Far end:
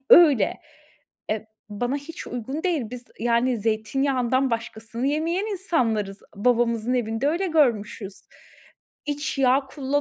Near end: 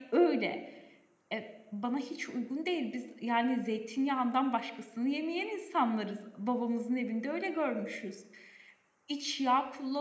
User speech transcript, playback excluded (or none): none